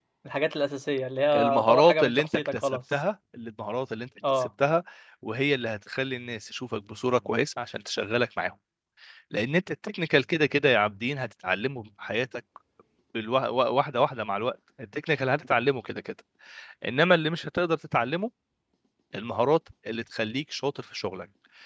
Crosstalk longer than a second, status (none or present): present